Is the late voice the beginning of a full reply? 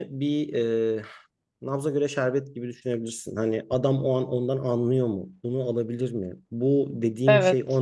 No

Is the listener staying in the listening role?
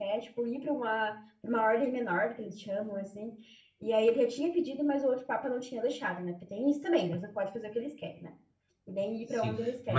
No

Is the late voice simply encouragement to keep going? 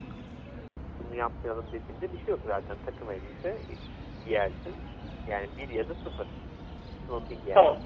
No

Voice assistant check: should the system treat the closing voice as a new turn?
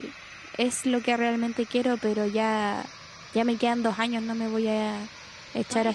Yes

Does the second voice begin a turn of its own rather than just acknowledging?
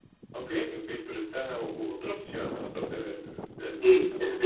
Yes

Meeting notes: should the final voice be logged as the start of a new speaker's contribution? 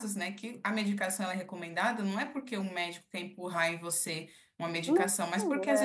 No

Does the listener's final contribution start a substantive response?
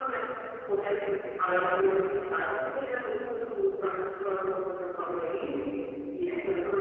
No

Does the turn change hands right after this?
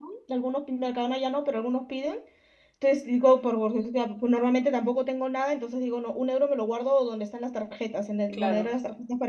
No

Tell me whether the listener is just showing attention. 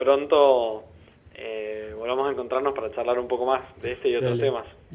No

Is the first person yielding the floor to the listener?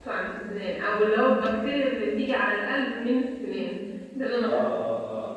Yes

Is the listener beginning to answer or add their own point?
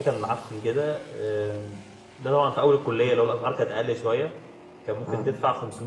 No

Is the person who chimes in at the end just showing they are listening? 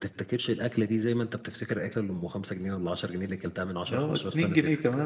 No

